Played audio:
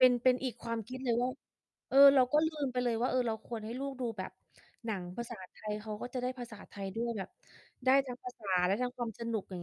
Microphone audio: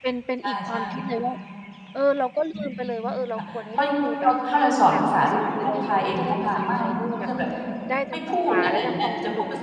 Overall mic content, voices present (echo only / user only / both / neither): both